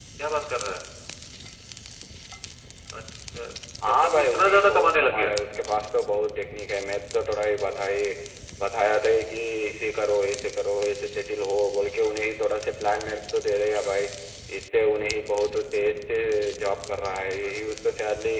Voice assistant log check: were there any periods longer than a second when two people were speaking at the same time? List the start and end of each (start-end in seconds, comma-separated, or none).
3.8-5.3